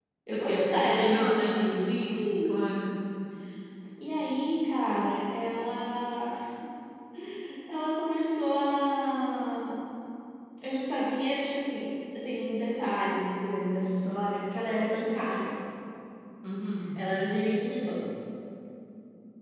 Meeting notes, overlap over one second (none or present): present